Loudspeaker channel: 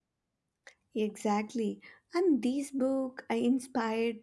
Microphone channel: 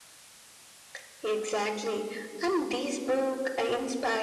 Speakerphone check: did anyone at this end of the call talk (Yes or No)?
No